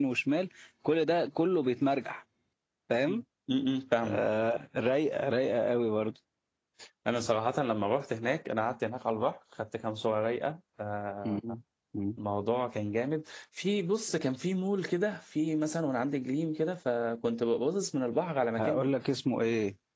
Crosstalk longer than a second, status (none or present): none